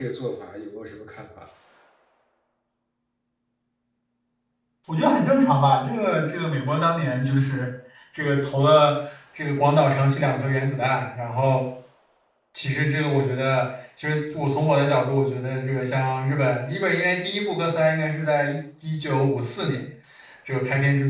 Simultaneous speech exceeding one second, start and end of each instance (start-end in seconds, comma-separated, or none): none